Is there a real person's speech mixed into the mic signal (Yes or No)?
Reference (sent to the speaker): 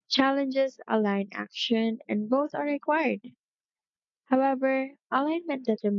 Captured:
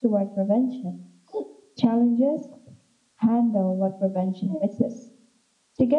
Yes